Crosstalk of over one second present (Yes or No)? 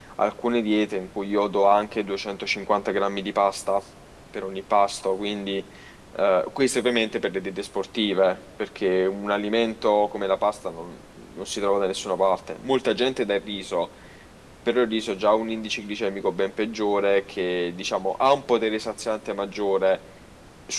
No